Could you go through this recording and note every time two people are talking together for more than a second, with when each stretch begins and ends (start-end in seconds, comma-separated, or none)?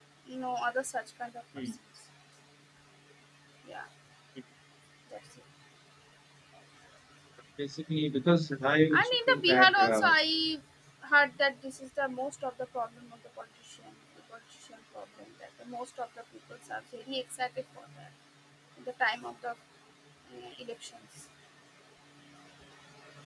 8.9-10.1